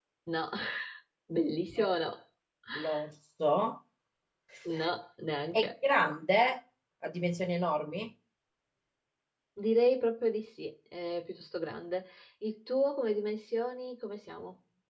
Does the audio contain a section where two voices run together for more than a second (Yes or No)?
No